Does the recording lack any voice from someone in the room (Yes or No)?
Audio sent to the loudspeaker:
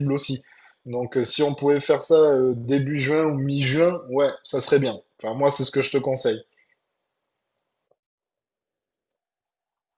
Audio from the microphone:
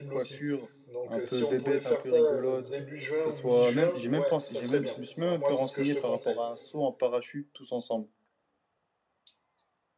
No